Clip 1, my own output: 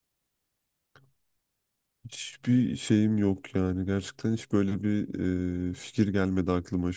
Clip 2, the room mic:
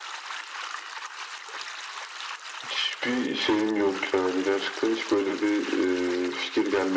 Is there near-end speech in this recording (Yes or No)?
No